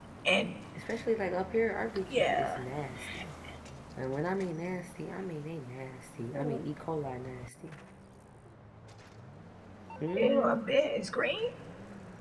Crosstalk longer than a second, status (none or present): none